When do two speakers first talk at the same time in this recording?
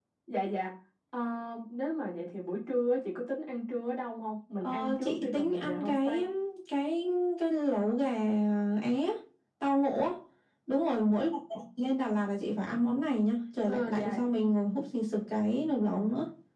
4.6 s

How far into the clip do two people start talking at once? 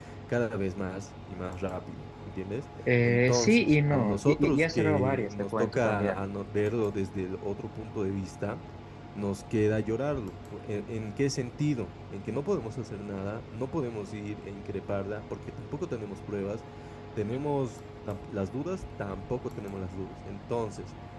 2.8 s

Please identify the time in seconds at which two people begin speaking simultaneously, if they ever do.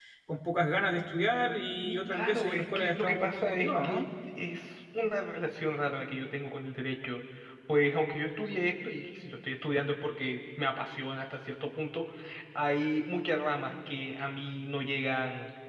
1.8 s

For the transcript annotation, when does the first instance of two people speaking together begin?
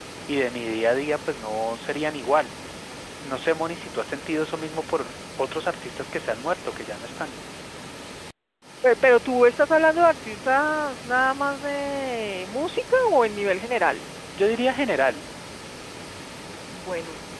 none

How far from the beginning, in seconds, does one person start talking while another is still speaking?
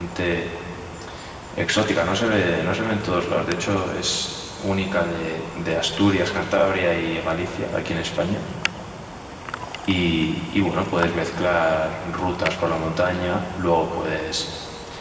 none

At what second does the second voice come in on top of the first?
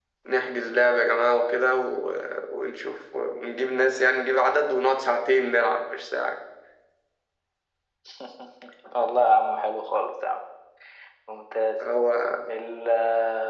none

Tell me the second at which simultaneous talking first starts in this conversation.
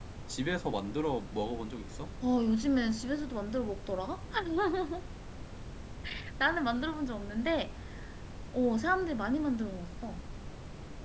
none

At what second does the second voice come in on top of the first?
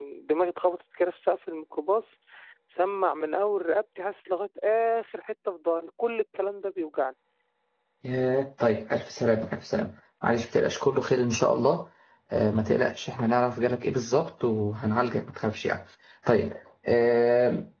none

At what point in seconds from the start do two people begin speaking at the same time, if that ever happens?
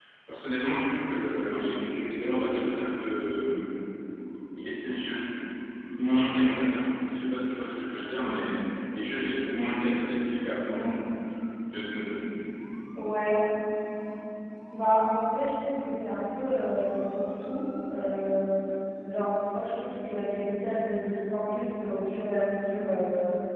none

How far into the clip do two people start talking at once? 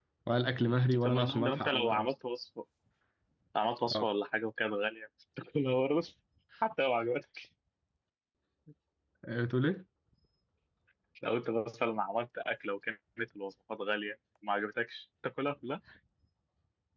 0.6 s

